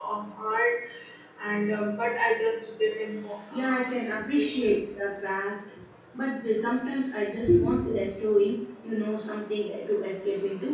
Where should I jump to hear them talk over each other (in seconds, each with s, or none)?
3.5 s